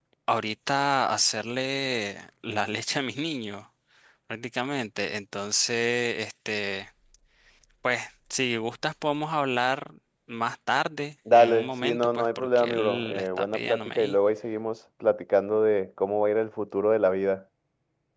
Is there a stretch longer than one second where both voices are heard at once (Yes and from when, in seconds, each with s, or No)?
Yes, from 11.3 s